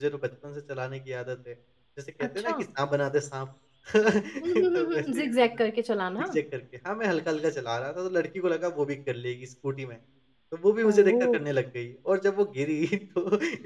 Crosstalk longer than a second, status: present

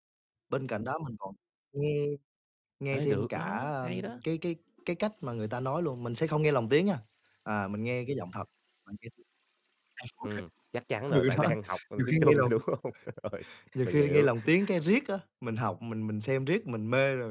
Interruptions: present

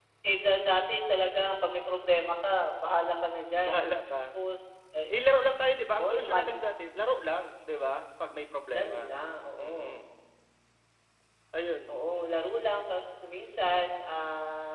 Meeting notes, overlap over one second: none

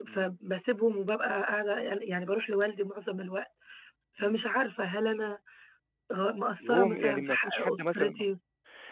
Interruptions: present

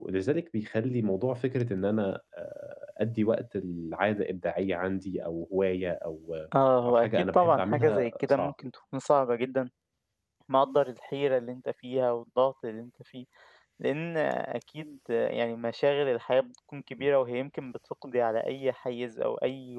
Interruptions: present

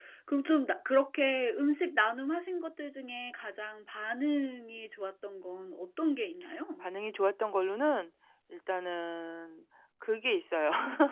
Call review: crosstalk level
none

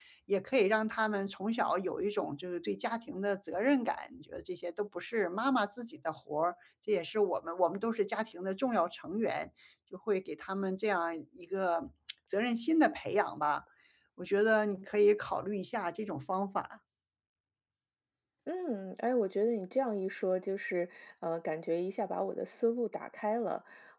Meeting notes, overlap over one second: none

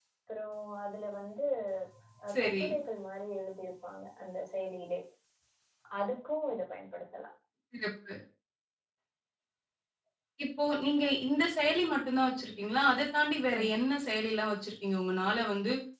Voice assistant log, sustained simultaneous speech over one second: none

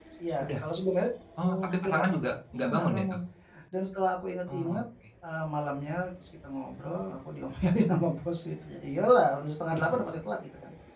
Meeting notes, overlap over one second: present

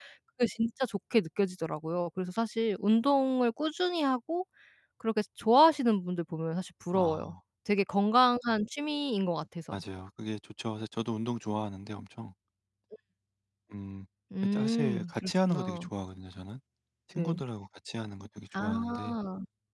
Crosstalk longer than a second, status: present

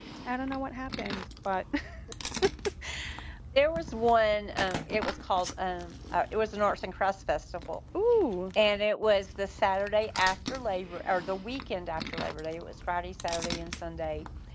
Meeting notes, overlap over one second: none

